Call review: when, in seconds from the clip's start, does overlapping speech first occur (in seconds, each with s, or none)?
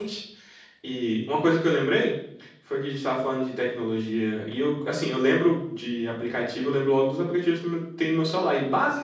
none